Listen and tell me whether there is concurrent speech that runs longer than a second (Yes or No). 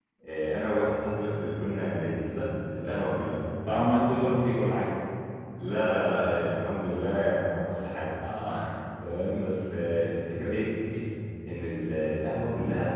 No